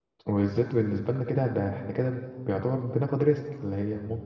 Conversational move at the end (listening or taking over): listening